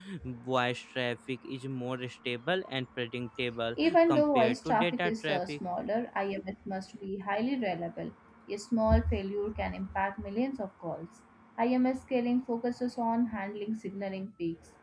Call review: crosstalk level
present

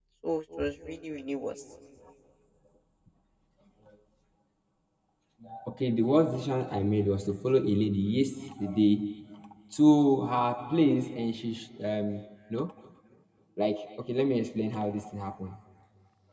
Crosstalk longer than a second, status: none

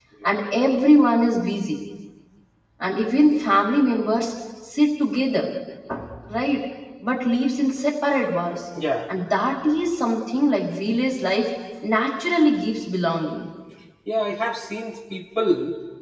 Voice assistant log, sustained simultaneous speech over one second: none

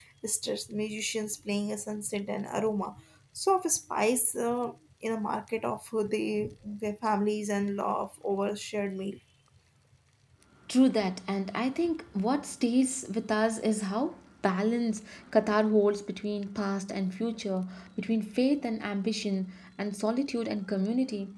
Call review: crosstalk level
none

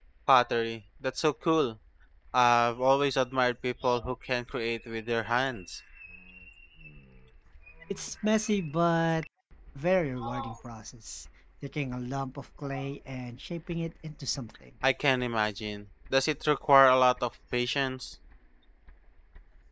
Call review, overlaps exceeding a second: none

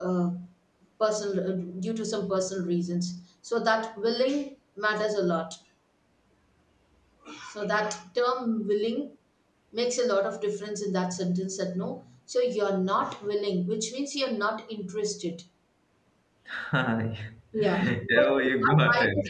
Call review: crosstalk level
present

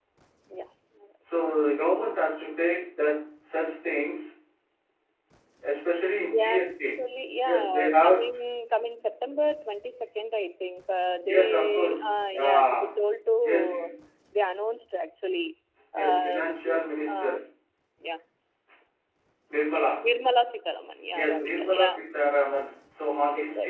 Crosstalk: present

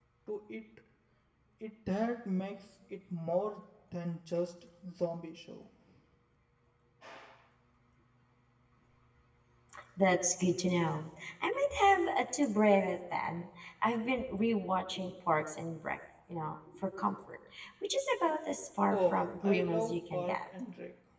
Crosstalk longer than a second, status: present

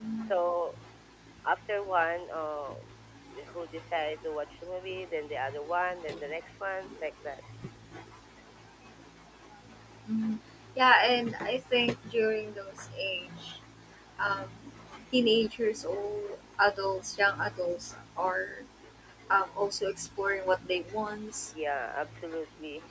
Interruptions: none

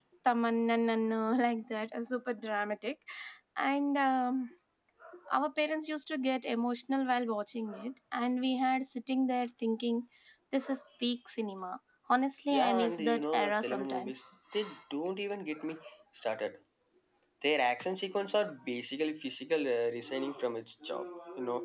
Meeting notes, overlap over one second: present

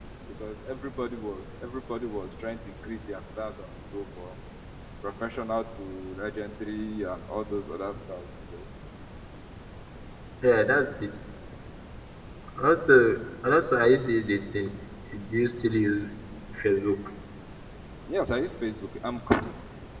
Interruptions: none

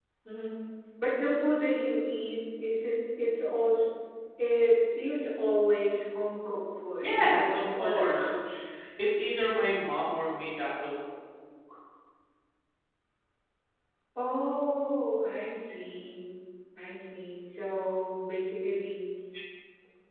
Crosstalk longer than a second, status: present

